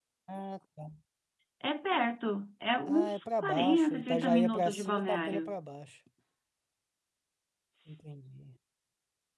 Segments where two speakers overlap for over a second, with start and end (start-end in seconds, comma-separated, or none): 2.9-5.4